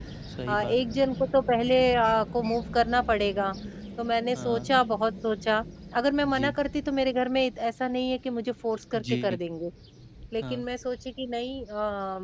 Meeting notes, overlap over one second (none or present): none